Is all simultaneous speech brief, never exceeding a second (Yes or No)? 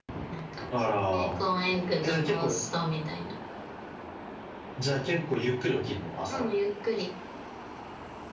Yes